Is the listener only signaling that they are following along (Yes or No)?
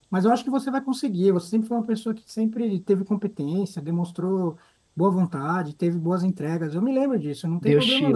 No